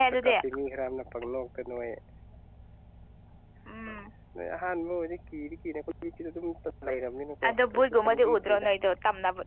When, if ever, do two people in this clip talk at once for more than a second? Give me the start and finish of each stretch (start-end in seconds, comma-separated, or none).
7.5-8.7